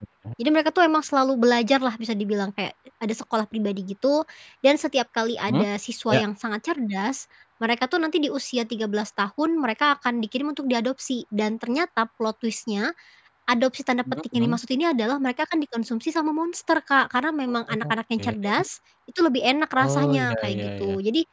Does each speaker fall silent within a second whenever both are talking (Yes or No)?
No